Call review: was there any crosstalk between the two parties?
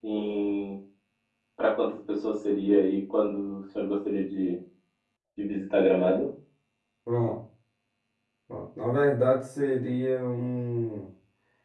No

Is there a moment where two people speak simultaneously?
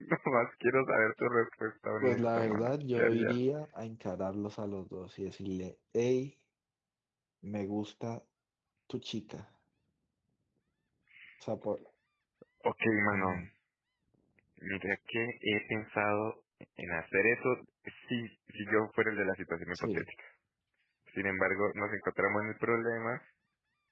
Yes, from 2.0 s

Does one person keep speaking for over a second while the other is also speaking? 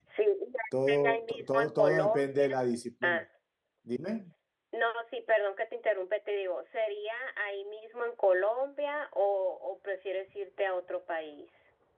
Yes, from 0.8 s

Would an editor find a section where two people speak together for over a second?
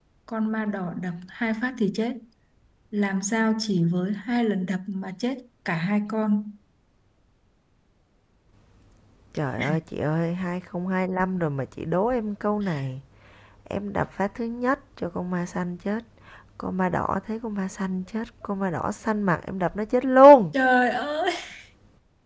No

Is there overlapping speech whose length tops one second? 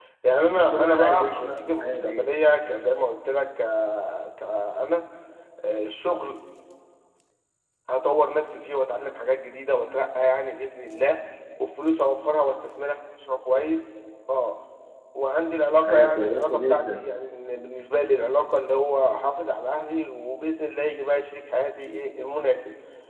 Yes, from 0.5 s

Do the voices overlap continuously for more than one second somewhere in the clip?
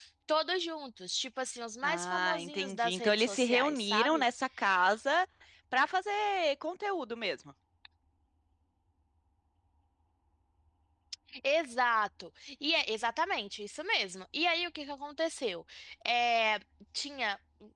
Yes, from 1.8 s

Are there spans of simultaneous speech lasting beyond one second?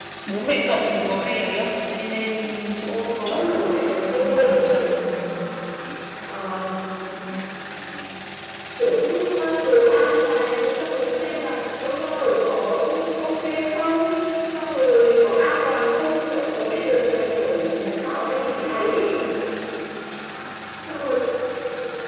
Yes, from 3.2 s

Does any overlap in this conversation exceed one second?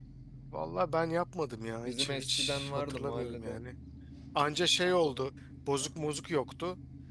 Yes, from 1.8 s

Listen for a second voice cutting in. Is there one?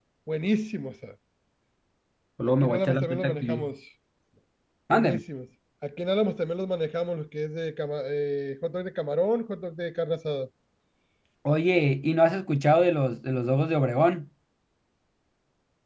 Yes, from 2.5 s

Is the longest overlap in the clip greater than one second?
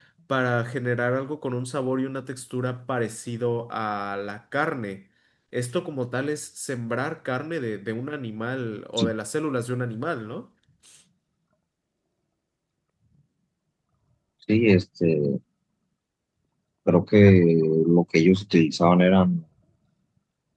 No

